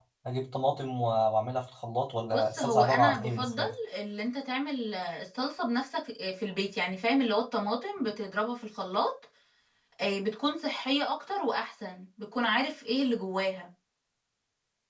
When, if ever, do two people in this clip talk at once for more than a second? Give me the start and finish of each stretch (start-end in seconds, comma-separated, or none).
2.3-3.7